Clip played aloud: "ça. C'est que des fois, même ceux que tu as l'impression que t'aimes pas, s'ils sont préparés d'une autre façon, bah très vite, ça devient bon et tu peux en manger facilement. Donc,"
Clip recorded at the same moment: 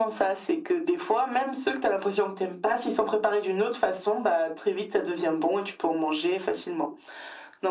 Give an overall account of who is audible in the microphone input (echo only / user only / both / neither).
echo only